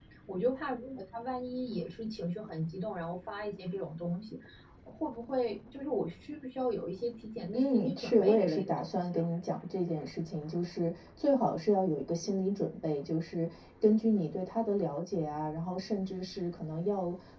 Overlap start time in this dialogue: 7.5 s

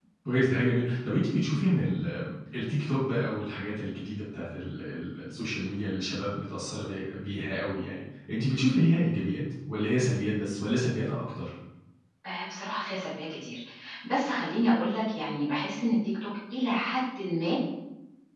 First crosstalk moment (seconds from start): none

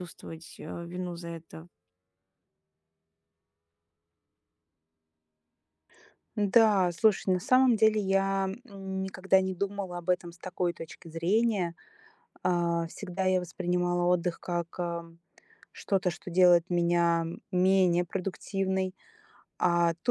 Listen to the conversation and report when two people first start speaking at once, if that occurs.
none

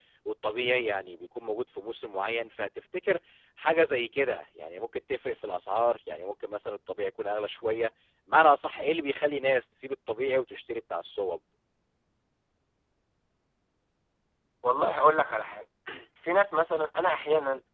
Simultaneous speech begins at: none

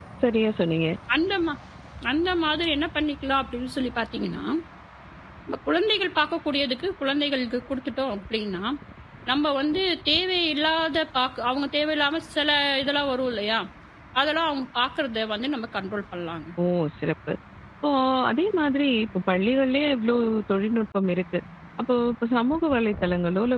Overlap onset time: none

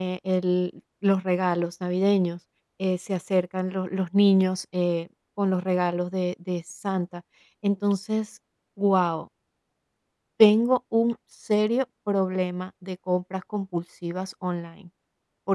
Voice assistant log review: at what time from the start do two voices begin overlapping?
none

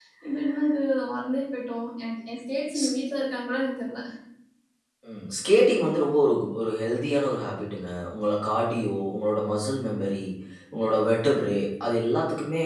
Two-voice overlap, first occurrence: none

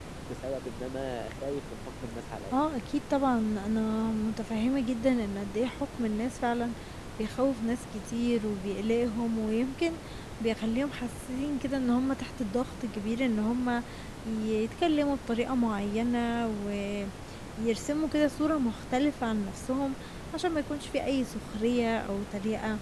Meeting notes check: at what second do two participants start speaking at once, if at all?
none

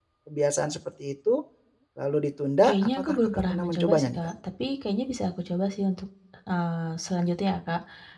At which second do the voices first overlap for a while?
2.6 s

